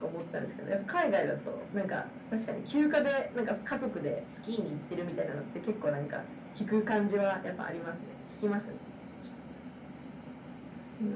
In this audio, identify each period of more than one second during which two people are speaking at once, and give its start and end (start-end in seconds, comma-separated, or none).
none